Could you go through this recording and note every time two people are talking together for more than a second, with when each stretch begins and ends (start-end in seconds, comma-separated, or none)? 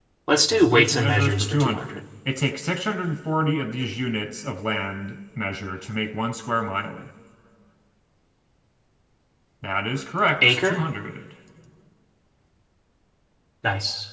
0.5-1.9